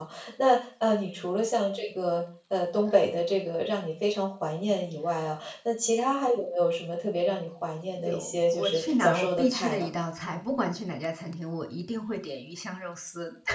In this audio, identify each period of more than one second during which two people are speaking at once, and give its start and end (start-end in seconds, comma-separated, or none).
8.0-9.9